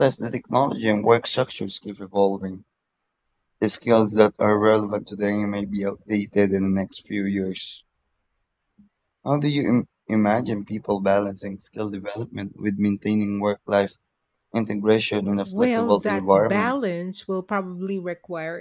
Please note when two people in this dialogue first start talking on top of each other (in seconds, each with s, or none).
15.5 s